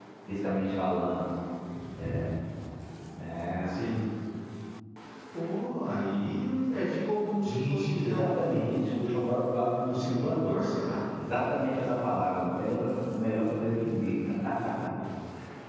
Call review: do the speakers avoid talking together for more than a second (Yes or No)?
No